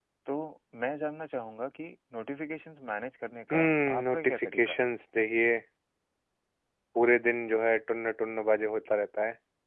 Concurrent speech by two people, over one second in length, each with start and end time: 3.5-4.8

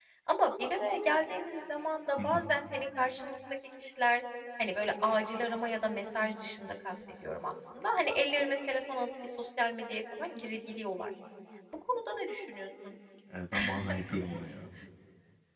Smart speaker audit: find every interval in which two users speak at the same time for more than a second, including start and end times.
none

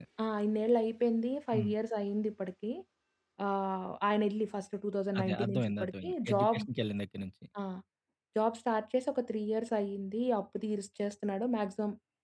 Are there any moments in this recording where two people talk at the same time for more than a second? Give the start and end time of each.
5.2-6.6

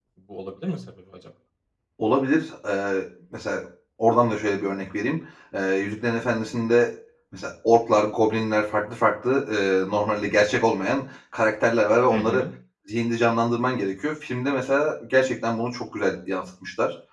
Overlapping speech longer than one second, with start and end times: none

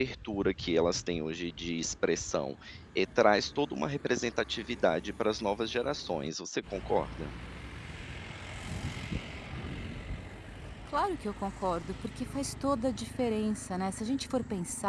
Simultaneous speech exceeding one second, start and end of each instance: none

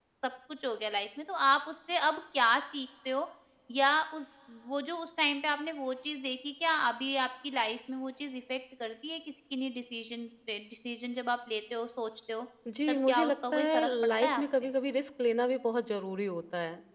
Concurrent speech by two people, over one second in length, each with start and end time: 12.9-14.4

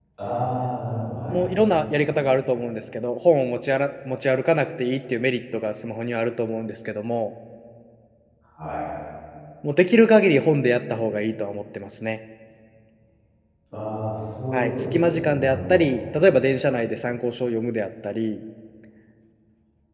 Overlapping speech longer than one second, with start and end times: 14.5-15.9

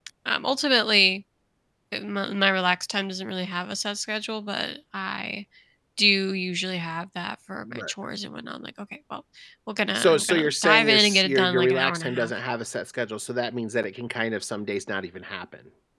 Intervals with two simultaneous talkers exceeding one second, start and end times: 9.9-12.3

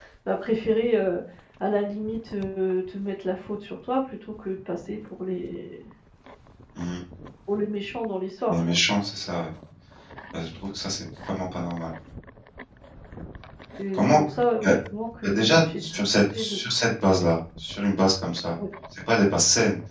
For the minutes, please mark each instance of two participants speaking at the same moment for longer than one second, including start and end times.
15.2-16.6

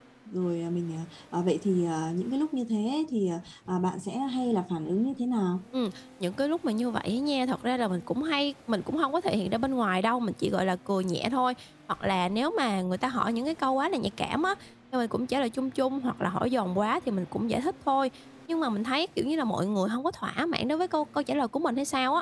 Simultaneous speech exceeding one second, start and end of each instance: none

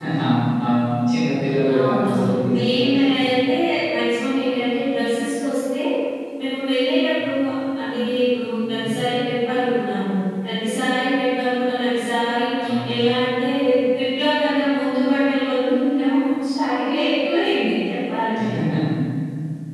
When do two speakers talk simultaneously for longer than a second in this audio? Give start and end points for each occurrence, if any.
1.8-3.2

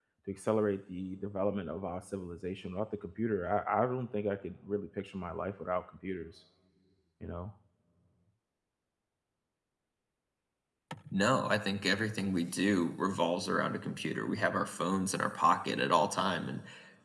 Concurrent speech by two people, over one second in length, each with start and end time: none

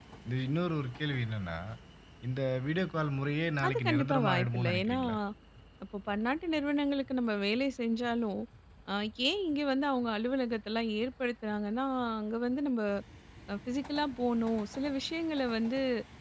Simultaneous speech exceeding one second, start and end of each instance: 3.7-5.0

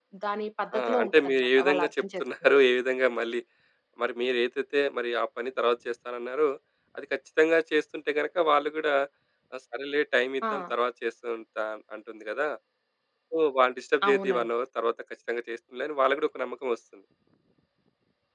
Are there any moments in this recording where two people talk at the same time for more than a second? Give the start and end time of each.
0.8-2.5

